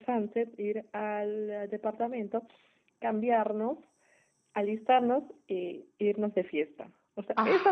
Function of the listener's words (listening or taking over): listening